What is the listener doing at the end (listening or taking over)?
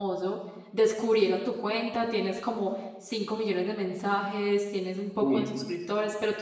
listening